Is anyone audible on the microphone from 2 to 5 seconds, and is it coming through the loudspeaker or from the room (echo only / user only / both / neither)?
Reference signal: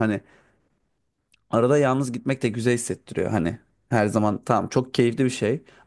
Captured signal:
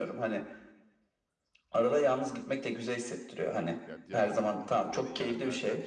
both